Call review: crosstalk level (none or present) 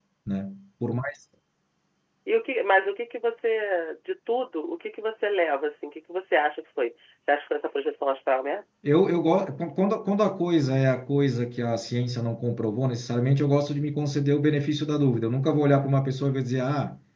none